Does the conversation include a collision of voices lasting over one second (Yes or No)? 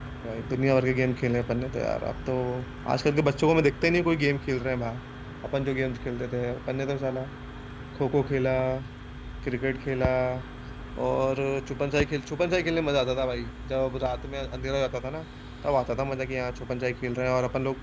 No